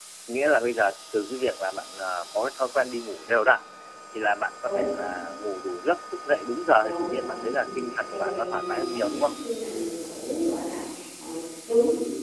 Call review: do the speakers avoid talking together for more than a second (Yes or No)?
No